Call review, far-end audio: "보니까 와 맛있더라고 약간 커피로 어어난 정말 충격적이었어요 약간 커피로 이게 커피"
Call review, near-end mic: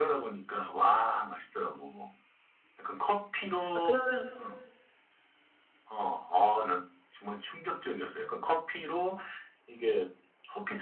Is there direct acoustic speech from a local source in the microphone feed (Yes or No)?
Yes